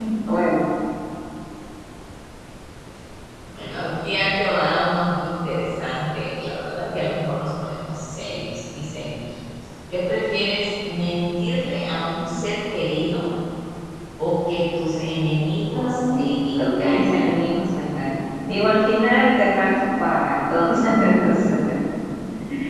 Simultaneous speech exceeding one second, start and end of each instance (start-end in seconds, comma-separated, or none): 15.7-17.2